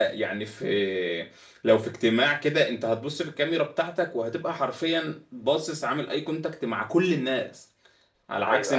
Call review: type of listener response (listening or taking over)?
listening